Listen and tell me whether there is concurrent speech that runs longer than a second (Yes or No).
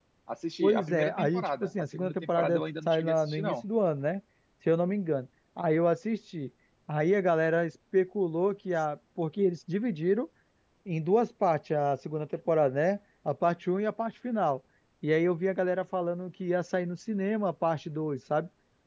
Yes